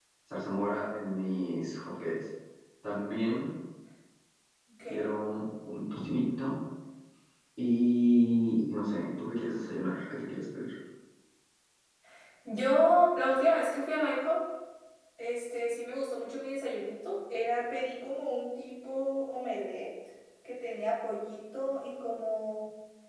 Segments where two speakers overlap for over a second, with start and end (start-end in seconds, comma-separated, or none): none